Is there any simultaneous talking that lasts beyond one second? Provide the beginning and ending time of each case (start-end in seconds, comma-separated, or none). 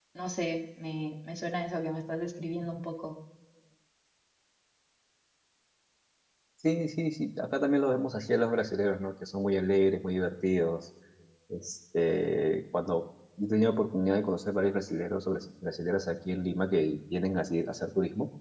none